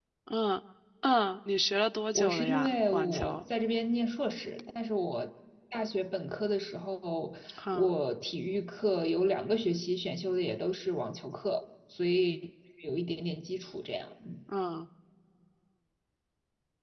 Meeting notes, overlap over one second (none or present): present